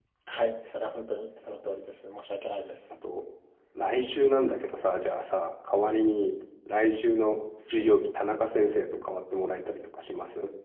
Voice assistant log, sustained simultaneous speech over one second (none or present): none